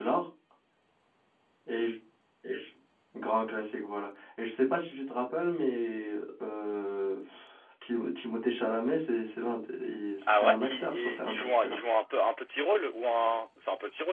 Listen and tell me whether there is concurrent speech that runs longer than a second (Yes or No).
Yes